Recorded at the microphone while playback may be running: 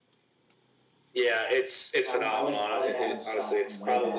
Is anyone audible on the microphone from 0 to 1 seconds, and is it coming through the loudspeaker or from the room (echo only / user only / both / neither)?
neither